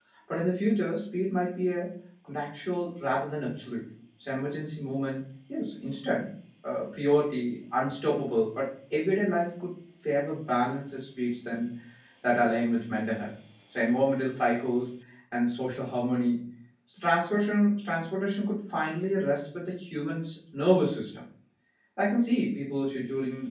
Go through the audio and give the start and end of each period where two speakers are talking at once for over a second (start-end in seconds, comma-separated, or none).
none